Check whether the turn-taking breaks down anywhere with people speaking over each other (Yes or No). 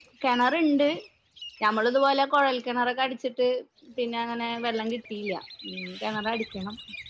No